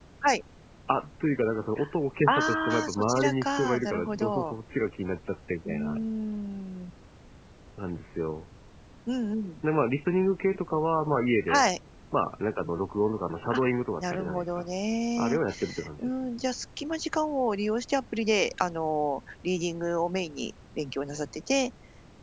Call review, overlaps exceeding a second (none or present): present